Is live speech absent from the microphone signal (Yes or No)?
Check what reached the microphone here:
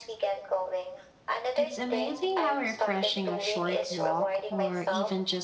No